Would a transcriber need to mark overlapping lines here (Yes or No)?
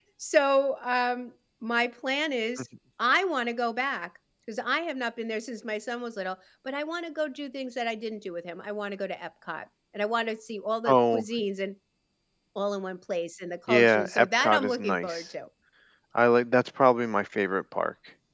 Yes